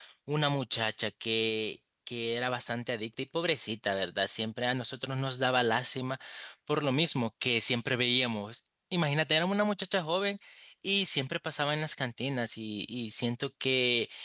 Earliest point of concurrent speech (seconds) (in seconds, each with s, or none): none